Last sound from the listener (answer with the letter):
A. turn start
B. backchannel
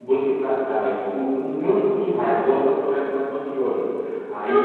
A